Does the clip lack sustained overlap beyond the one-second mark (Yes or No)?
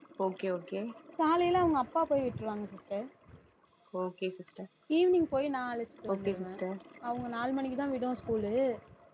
Yes